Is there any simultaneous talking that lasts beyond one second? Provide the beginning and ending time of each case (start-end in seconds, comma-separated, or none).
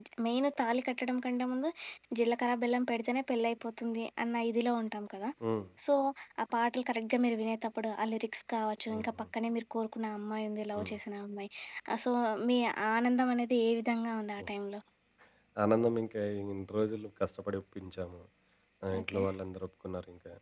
none